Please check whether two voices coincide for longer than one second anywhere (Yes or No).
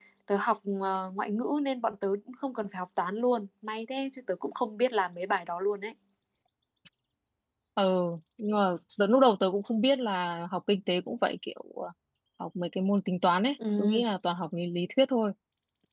No